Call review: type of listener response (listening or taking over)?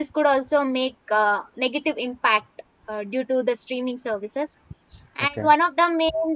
listening